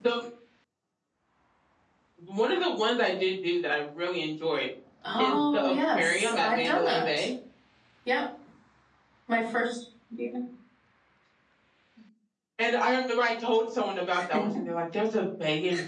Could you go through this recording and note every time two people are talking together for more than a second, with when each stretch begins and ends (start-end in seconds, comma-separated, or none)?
5.2-7.3